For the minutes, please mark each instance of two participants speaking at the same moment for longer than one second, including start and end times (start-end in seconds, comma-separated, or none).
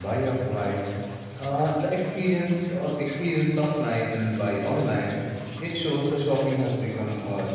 none